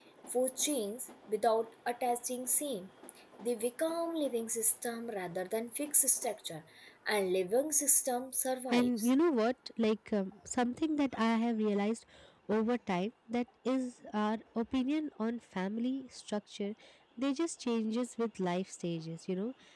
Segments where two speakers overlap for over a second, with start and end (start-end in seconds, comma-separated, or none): none